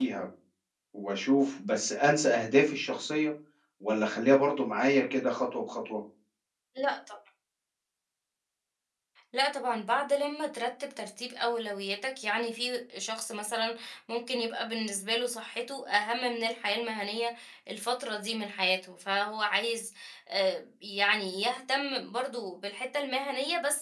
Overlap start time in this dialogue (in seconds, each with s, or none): none